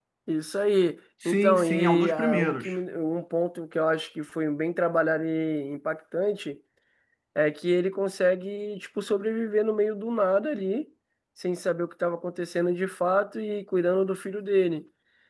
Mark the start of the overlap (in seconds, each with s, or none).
1.2 s